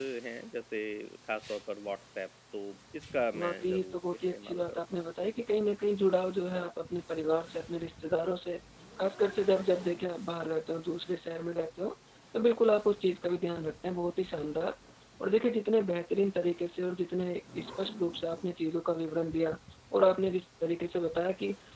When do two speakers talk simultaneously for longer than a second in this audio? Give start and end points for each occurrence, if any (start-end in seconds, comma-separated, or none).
3.3-5.1